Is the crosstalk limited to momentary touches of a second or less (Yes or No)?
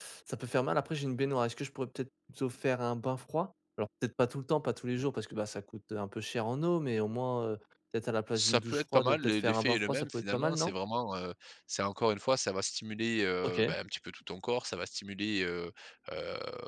No